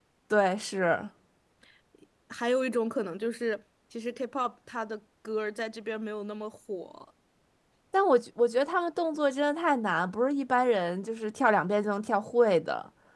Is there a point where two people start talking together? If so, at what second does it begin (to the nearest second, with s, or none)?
none